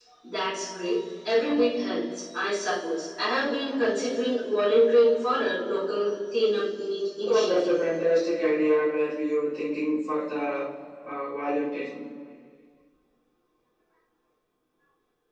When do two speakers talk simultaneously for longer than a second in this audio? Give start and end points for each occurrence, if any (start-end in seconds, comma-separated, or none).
none